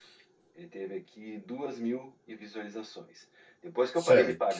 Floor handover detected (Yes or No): No